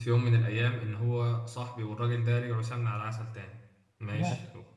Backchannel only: Yes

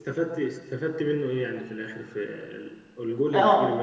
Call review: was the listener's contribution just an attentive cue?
No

